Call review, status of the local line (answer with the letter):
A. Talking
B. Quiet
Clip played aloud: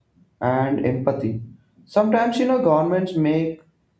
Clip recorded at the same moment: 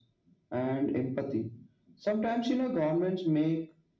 B